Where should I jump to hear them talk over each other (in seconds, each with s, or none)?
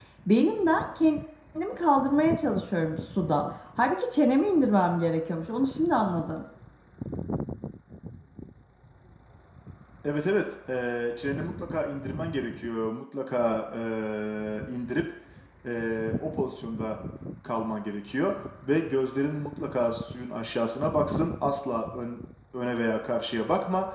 none